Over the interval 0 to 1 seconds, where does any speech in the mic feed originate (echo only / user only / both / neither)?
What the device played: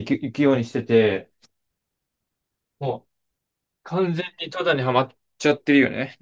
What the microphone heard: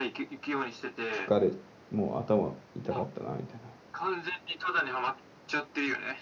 echo only